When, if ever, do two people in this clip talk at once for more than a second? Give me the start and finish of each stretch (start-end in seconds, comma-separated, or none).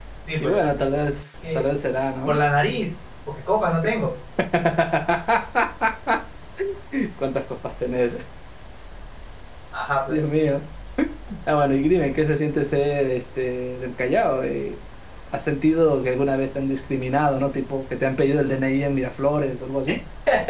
none